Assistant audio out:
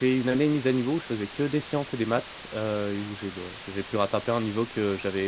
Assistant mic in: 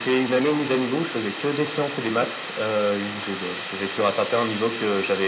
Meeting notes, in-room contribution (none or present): none